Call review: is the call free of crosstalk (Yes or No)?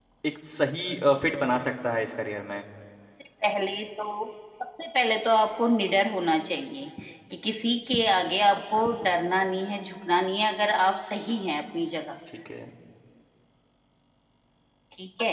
Yes